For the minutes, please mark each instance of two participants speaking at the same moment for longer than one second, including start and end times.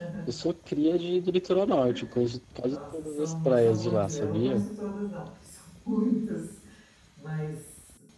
2.6-4.6

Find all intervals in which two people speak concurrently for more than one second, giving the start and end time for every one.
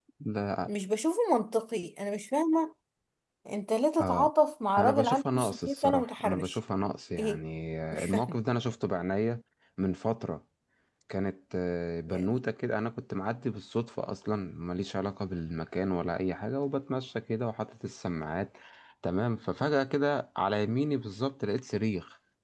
4.8-6.6

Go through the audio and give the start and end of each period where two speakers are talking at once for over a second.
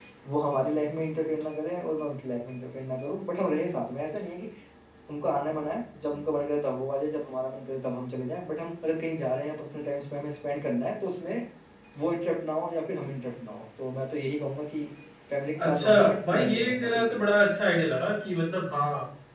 15.6-17.2

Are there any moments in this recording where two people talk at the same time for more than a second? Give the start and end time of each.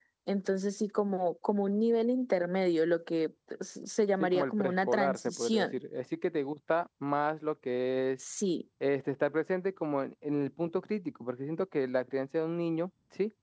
4.2-5.8

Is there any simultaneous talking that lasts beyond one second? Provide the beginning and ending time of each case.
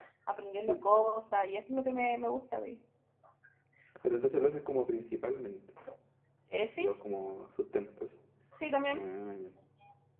none

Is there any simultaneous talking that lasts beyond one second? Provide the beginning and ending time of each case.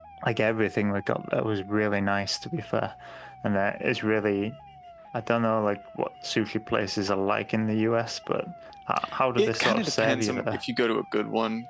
9.4-10.6

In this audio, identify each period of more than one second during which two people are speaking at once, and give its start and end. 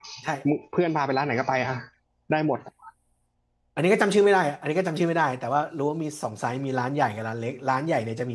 none

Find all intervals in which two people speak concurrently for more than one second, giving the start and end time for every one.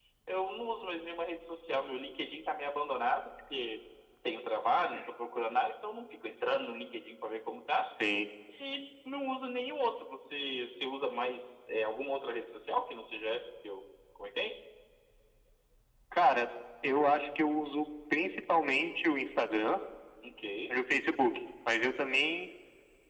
none

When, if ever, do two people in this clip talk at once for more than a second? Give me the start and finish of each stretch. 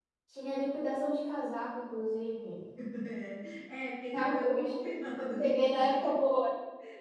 4.1-6.3

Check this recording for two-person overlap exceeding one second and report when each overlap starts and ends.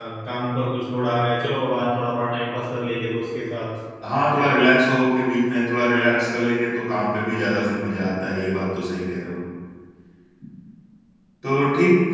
none

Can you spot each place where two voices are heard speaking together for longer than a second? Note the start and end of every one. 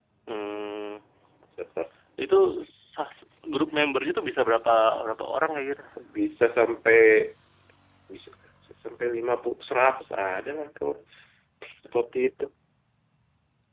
none

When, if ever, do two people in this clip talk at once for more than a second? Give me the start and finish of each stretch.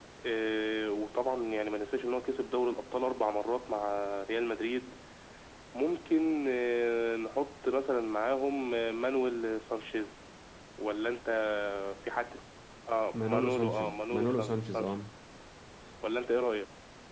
13.2-14.9

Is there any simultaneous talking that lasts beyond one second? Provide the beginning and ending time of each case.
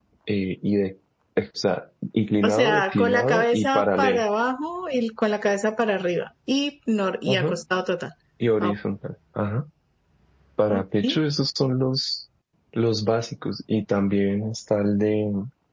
2.4-4.2

